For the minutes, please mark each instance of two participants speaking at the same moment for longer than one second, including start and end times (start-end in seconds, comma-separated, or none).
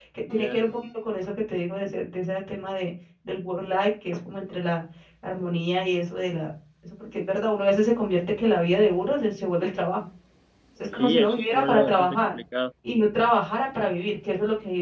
10.9-12.3